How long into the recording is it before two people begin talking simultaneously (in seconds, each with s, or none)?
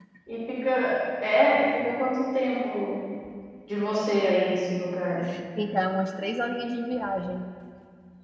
none